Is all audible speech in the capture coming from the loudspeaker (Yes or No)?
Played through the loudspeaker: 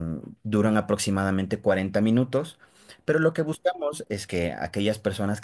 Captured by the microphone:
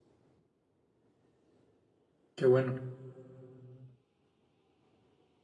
No